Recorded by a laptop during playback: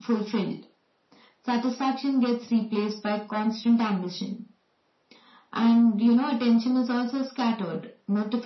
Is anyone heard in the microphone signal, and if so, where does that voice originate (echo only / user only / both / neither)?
echo only